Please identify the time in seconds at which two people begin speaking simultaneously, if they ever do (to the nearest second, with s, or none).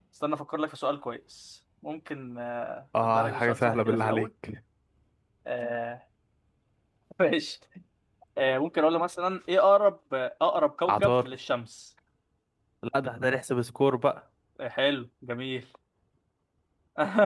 3 s